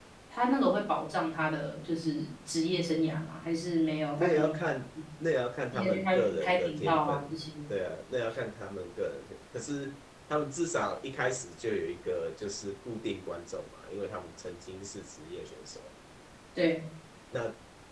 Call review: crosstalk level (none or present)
present